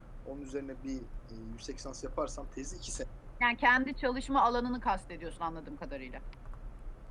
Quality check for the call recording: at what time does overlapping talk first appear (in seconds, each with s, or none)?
none